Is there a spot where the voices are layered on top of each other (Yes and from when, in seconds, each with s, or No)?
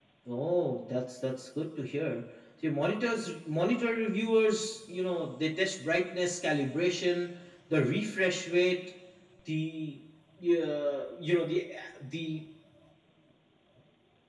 No